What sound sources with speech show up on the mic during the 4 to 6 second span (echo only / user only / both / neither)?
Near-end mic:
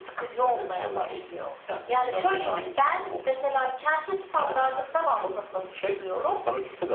echo only